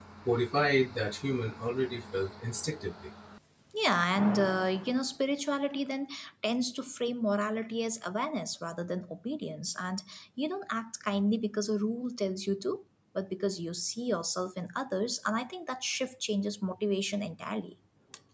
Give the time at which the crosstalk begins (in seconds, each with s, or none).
none